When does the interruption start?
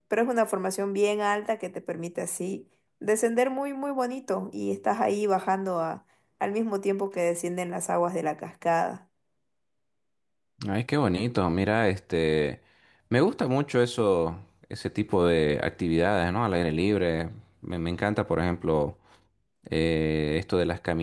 none

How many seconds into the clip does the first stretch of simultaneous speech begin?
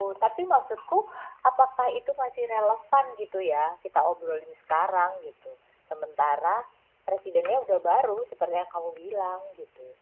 none

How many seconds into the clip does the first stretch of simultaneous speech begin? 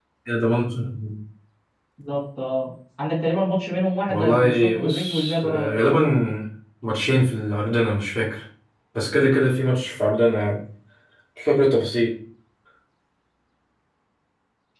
4.1 s

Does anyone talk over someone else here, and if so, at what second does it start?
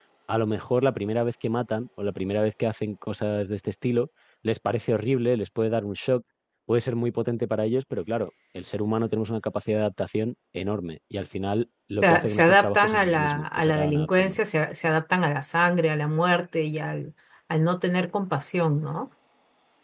12.0 s

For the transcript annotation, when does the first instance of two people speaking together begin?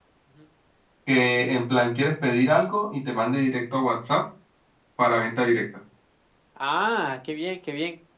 none

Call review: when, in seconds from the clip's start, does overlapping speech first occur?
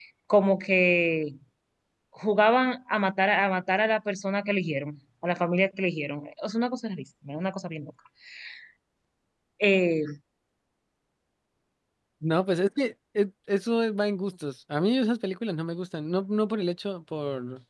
none

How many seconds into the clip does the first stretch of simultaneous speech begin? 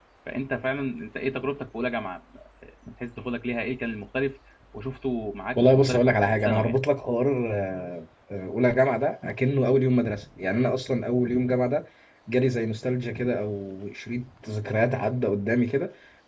5.5 s

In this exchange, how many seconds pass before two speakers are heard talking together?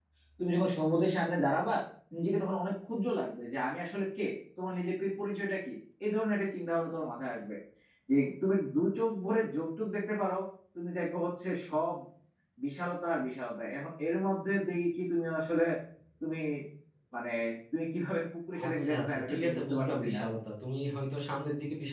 18.5 s

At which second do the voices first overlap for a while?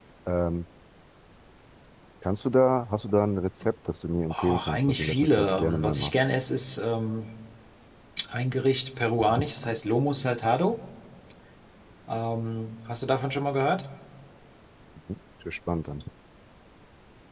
4.3 s

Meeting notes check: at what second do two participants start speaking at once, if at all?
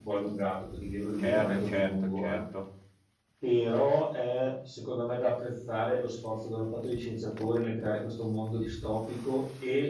1.2 s

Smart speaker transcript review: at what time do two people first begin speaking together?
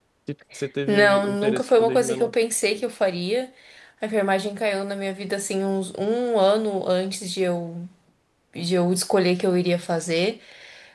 0.9 s

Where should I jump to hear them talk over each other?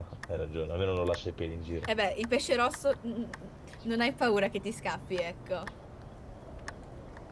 none

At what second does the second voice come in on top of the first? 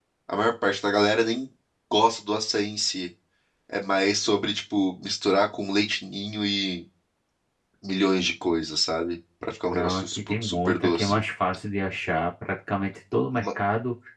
9.7 s

